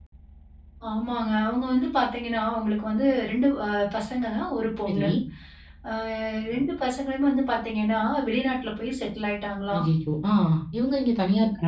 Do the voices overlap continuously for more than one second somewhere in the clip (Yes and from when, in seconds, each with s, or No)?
No